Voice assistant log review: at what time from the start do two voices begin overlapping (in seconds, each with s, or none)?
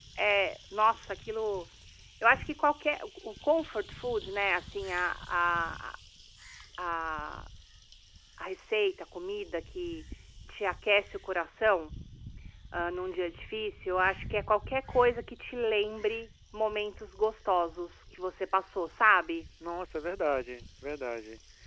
none